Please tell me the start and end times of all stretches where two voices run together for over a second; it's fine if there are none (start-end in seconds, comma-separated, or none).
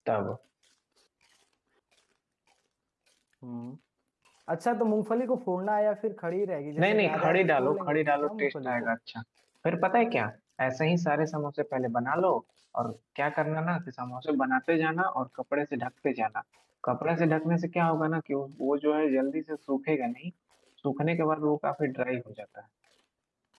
6.8-8.9